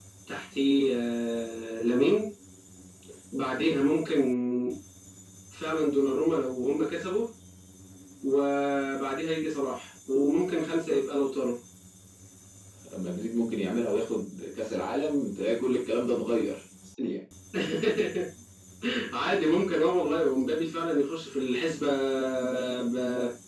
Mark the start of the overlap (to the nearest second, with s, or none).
none